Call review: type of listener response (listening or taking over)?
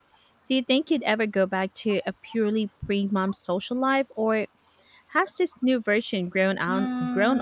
taking over